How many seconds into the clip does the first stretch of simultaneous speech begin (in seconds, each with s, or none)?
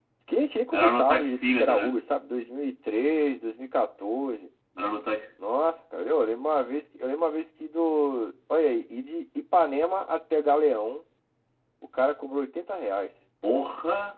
0.7 s